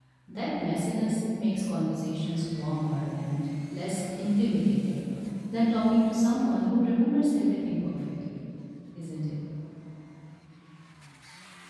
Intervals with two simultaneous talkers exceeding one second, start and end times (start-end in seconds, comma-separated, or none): none